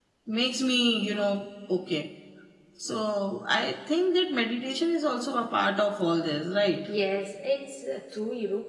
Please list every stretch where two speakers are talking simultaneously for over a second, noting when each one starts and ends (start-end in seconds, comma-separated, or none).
none